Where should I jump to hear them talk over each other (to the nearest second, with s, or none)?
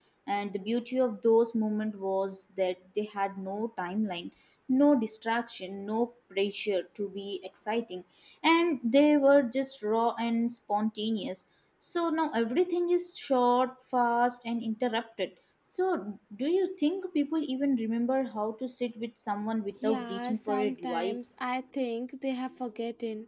20 s